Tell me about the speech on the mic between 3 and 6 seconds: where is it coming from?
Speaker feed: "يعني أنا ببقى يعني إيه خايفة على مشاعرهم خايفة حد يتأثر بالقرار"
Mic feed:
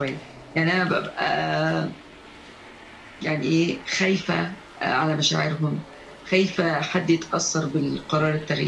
echo only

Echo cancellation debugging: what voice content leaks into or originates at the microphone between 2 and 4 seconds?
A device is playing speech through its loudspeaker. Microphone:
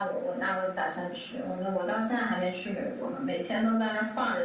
echo only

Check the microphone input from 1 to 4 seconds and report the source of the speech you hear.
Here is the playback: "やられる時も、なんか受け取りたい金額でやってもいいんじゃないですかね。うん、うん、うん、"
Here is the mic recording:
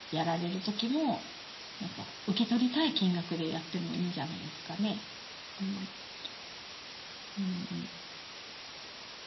echo only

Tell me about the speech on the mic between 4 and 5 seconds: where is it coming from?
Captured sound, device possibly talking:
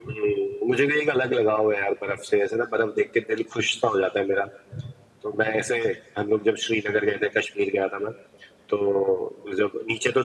echo only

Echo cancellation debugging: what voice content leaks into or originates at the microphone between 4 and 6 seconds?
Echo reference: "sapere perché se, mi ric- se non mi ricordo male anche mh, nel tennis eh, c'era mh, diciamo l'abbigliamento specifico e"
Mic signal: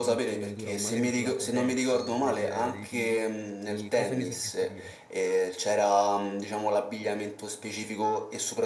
both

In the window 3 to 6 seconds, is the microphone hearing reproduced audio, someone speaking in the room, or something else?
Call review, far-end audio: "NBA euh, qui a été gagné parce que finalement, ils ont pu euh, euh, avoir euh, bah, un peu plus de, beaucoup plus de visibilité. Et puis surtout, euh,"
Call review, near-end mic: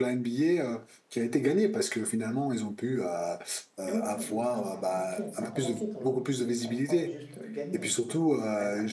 both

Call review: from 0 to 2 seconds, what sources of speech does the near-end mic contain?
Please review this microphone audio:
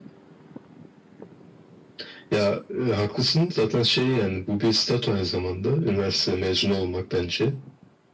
neither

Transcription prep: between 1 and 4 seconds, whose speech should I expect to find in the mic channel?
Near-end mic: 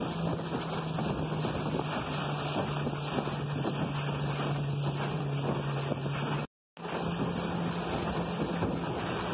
neither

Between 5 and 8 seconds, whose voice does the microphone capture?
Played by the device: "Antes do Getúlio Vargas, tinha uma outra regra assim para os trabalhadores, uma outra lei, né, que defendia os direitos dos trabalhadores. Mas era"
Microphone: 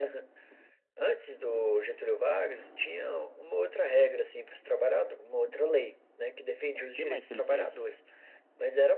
both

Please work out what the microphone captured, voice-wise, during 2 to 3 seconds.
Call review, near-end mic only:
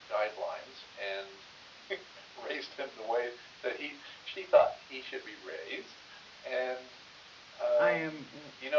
echo only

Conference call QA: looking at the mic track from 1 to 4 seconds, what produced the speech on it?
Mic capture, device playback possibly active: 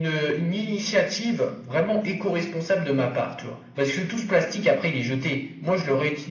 echo only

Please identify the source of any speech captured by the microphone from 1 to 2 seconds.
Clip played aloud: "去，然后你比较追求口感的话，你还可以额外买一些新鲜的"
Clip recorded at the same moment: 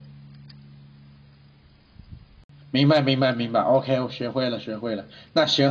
neither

